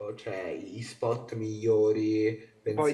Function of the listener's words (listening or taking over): taking over